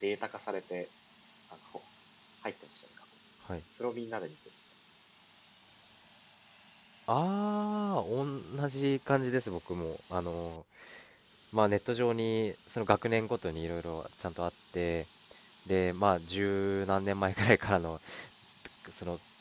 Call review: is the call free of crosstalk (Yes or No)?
Yes